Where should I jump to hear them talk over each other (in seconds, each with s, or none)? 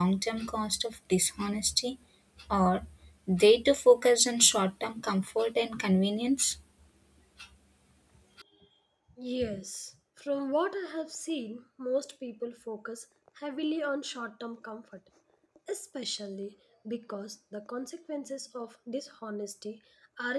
none